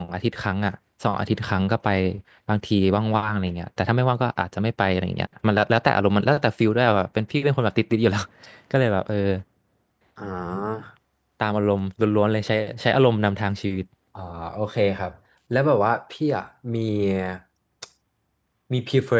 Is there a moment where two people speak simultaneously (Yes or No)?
No